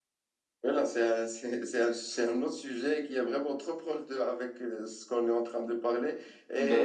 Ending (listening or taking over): listening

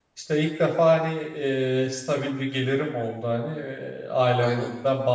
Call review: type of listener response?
listening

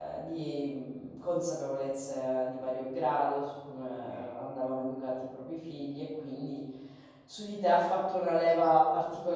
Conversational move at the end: listening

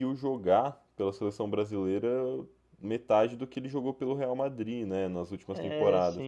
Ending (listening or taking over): listening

